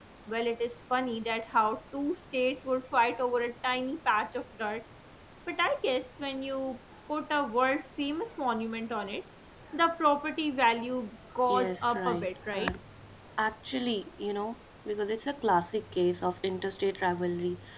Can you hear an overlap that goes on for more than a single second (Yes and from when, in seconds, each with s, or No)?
Yes, from 11.5 s